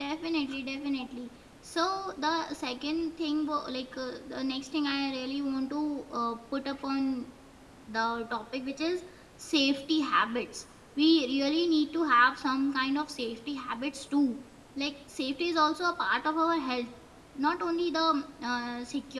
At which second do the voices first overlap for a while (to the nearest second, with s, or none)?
none